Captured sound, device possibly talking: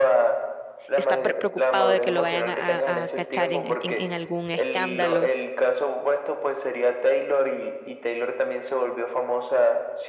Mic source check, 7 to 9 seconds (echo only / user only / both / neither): echo only